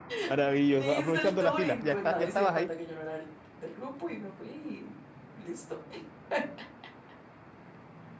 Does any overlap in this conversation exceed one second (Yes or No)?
Yes